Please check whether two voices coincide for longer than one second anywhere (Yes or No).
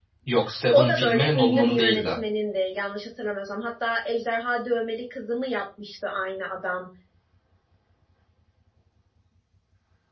Yes